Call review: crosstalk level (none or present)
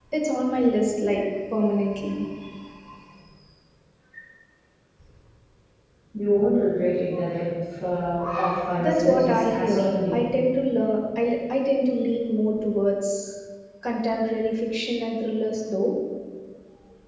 present